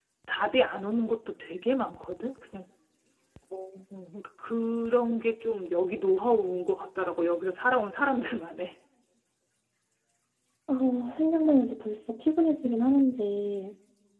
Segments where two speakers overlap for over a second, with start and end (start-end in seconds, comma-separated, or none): none